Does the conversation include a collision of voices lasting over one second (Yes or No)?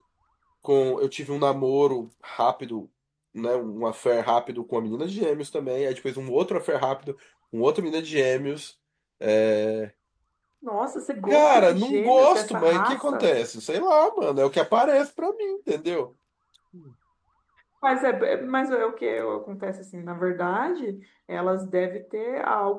Yes